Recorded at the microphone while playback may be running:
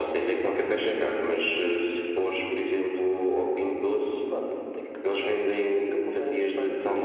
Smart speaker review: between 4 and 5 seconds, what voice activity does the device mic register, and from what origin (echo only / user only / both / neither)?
echo only